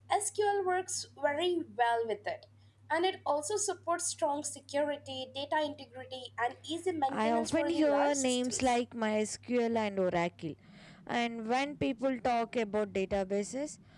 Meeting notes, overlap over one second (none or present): present